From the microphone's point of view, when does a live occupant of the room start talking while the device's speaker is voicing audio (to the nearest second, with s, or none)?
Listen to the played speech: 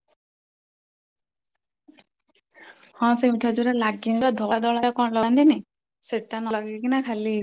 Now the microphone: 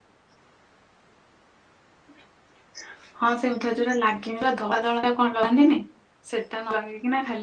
none